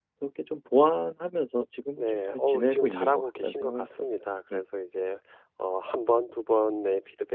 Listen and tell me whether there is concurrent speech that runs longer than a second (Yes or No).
Yes